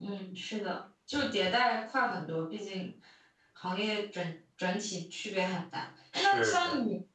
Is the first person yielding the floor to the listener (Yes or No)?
No